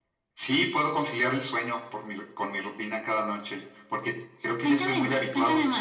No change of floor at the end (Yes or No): No